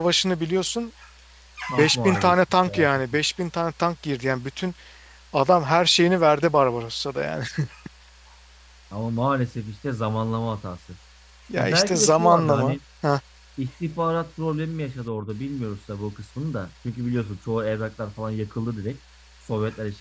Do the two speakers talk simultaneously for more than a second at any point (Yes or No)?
Yes